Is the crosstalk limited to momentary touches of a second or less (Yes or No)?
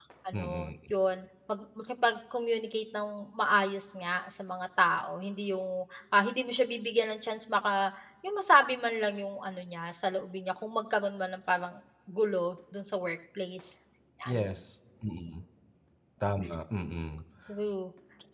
Yes